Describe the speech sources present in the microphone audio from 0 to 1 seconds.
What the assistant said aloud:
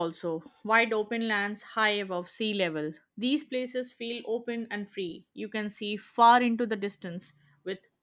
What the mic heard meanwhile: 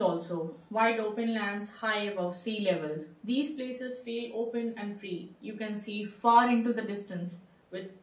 echo only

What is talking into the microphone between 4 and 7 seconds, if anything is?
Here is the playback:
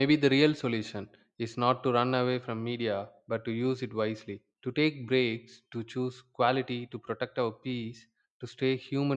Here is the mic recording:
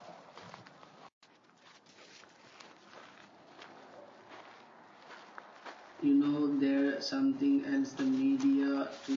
user only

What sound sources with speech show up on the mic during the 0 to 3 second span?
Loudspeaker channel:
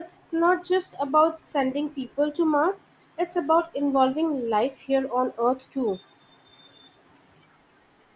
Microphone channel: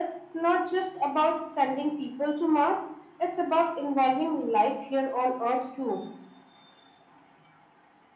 echo only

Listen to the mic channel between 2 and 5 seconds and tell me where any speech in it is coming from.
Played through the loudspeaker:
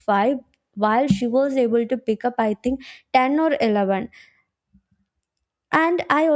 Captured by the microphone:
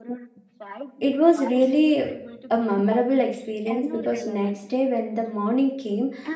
both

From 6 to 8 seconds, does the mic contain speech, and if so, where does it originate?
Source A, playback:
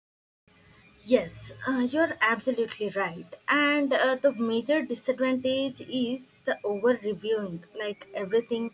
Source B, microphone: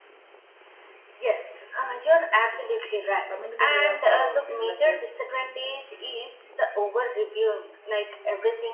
echo only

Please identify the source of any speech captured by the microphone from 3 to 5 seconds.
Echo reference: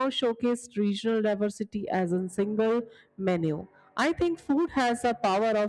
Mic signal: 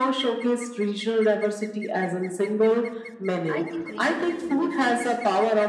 both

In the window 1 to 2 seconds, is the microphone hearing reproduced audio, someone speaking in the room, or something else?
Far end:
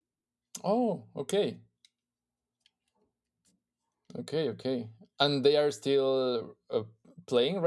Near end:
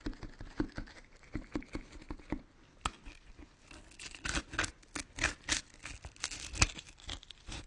neither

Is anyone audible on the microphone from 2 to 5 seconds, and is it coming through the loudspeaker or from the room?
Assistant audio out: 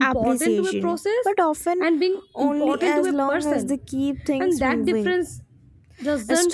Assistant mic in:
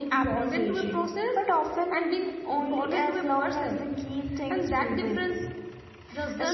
echo only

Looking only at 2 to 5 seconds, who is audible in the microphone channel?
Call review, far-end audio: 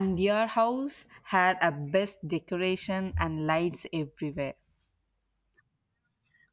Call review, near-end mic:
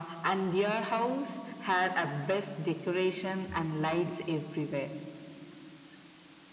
echo only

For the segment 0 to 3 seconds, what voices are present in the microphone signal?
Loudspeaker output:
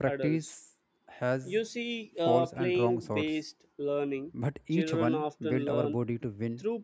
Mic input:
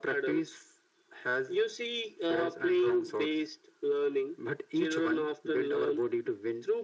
echo only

